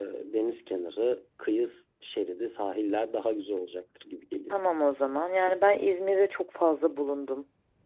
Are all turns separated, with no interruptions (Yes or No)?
Yes